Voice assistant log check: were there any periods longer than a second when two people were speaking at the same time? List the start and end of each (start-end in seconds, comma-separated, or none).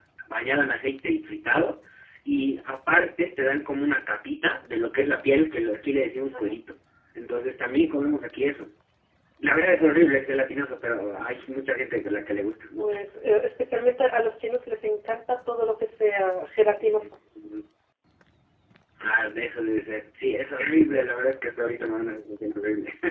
none